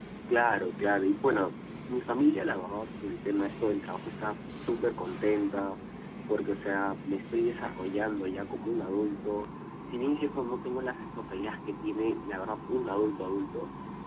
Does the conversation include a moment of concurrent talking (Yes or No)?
No